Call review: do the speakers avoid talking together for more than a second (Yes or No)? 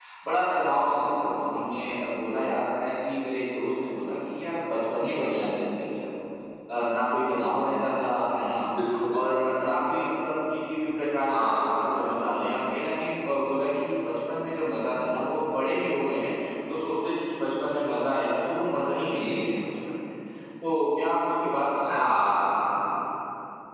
Yes